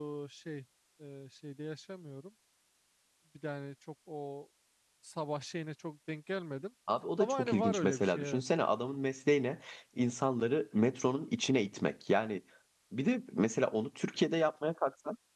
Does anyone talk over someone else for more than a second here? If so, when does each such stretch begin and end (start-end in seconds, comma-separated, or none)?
7.2-8.4